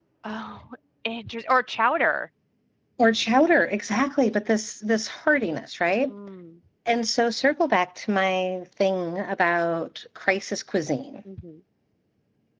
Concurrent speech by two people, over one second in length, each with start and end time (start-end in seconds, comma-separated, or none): none